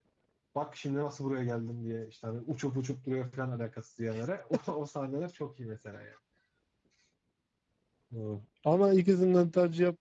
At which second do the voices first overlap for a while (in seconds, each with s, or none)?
none